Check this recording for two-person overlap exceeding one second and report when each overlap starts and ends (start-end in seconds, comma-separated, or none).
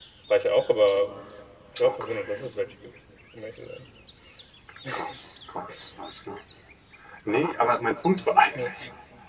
none